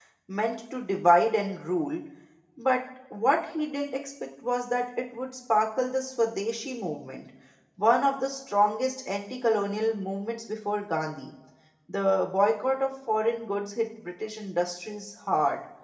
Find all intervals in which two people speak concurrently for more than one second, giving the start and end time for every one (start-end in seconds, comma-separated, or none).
none